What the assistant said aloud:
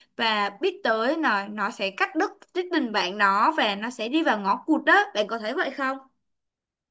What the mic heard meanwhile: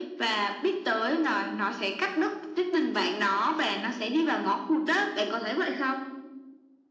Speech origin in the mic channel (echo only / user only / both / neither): echo only